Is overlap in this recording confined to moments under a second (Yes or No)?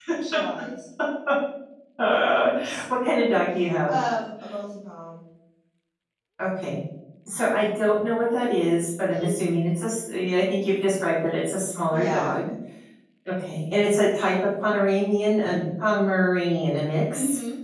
Yes